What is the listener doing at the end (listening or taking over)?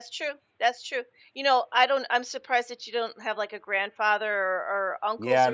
taking over